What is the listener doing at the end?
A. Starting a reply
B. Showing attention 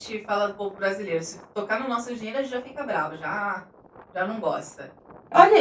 A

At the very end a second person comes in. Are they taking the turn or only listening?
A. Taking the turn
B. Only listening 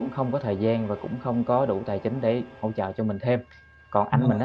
B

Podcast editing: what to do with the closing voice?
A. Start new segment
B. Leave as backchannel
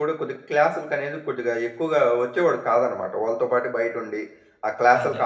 B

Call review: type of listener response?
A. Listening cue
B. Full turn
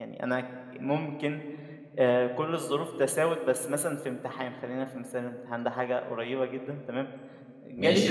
B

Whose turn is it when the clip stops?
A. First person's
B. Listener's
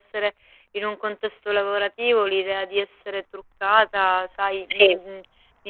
A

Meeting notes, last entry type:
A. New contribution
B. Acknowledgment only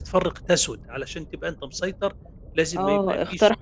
A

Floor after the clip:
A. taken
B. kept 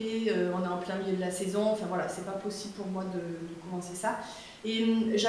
B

